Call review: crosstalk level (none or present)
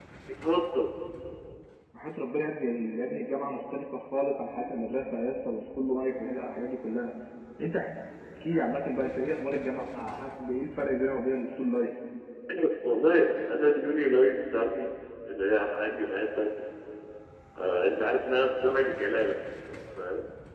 none